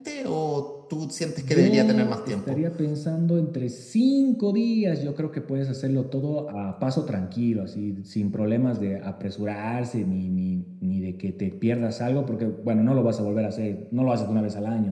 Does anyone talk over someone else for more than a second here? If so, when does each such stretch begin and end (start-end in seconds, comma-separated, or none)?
1.4-2.6